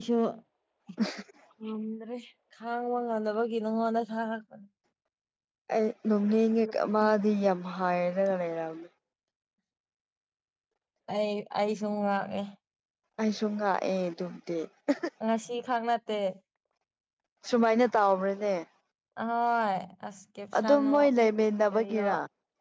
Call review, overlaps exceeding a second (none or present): none